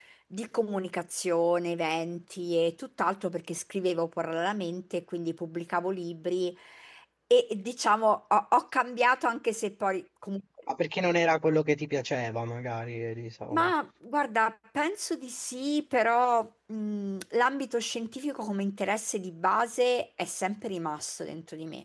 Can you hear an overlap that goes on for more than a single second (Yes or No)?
No